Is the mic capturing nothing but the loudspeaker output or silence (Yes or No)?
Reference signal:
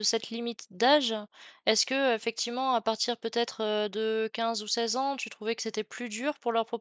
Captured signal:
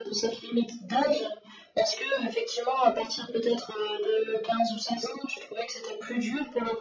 Yes